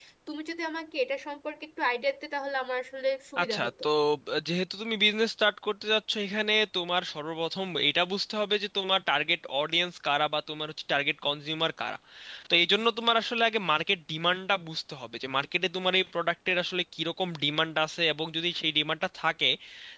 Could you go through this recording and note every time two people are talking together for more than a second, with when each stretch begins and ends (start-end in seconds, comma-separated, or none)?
none